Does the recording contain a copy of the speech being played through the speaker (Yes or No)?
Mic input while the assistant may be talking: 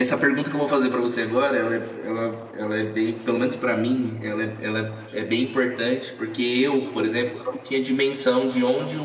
No